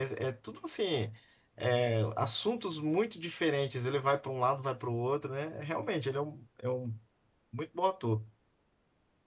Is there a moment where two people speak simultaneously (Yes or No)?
No